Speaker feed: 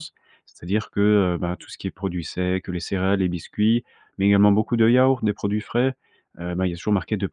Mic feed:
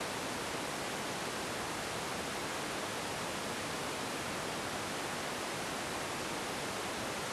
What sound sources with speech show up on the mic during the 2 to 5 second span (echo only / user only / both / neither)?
neither